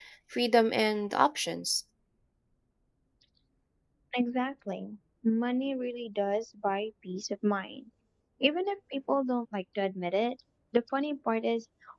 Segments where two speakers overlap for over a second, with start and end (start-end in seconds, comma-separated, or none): none